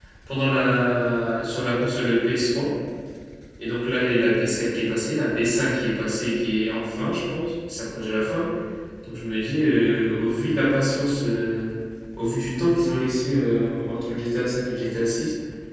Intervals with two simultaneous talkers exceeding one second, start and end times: none

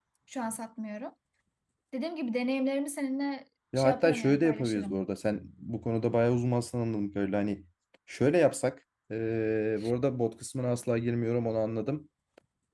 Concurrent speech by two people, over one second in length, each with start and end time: 3.8-5.0

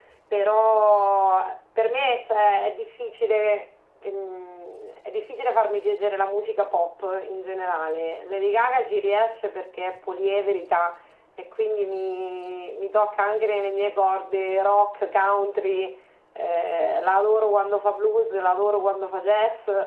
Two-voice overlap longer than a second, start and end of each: none

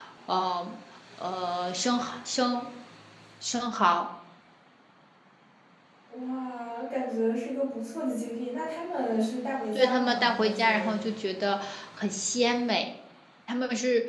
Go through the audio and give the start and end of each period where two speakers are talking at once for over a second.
9.7-10.9

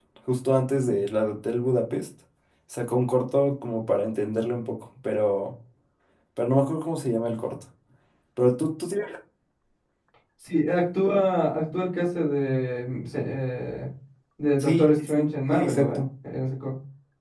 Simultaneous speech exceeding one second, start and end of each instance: 14.6-16.0

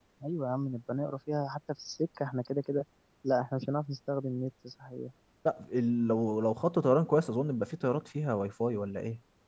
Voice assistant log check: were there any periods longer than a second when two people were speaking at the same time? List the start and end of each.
none

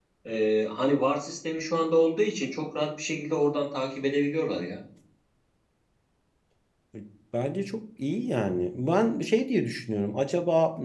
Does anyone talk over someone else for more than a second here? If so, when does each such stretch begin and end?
none

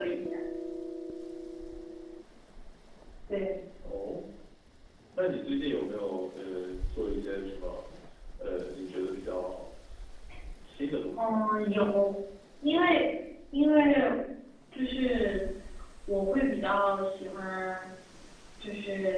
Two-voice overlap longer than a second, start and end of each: none

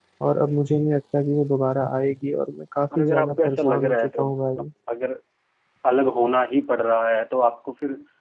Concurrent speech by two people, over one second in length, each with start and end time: 3.0-4.2

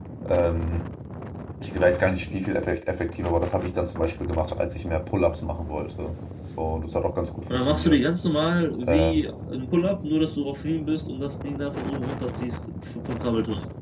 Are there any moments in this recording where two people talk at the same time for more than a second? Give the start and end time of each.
none

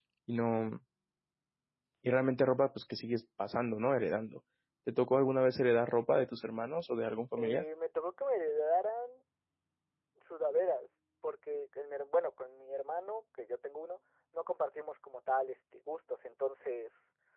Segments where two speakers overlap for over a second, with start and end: none

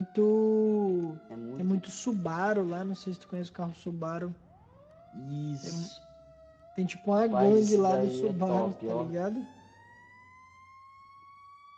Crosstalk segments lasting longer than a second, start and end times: 7.1-9.1

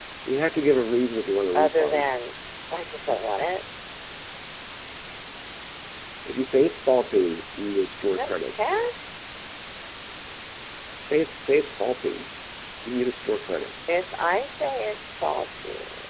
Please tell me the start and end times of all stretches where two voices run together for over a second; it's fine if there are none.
none

